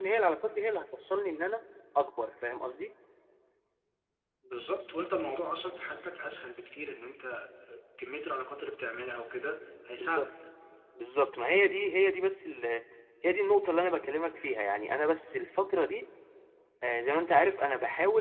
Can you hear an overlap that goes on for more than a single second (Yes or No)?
No